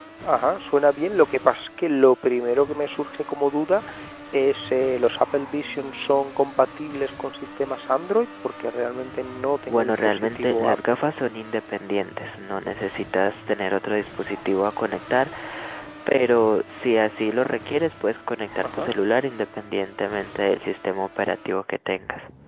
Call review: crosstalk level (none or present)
present